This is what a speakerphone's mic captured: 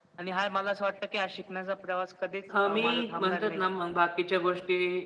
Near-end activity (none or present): present